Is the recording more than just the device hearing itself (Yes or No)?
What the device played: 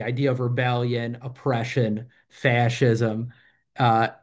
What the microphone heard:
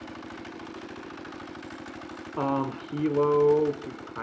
Yes